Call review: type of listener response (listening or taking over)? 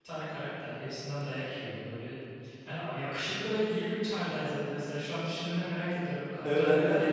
taking over